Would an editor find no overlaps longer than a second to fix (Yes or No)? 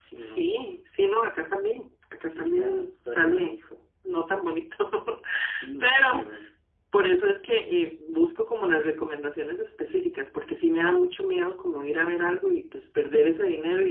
No